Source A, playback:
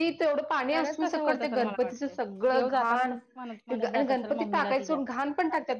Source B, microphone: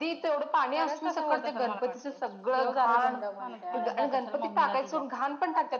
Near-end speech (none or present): present